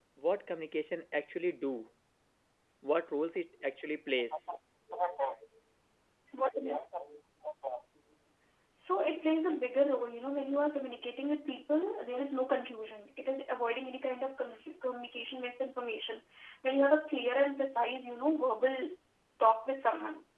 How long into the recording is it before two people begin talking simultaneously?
none

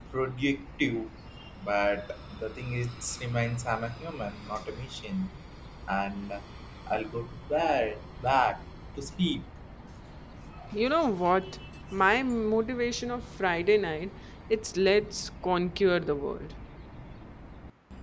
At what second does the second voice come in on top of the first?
none

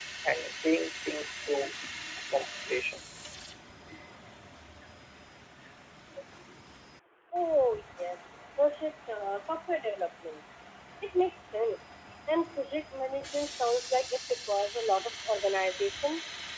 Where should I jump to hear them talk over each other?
none

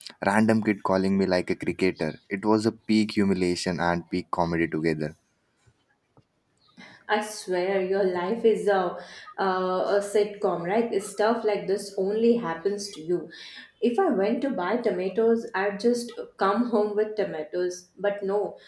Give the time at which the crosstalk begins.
none

